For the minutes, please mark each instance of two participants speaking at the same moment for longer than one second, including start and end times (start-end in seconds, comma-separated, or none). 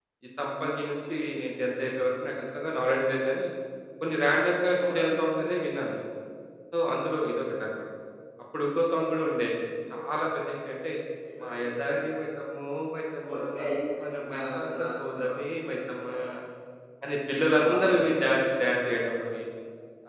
none